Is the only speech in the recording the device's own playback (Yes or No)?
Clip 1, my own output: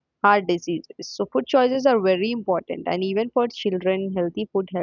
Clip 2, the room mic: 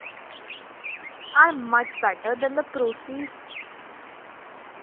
No